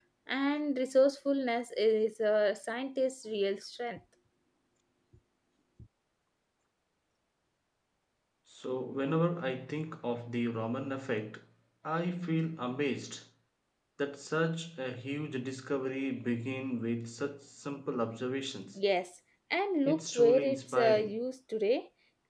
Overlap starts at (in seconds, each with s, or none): 19.9 s